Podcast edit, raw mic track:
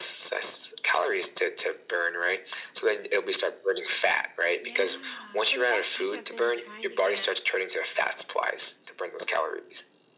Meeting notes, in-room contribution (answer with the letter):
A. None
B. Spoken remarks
B